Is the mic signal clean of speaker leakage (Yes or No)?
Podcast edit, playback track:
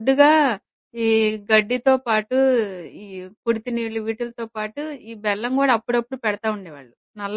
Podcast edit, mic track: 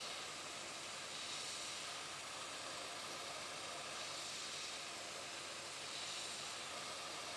Yes